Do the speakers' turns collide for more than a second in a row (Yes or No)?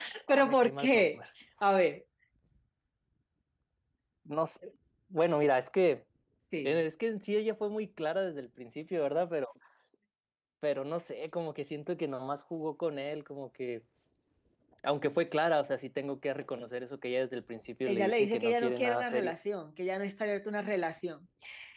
Yes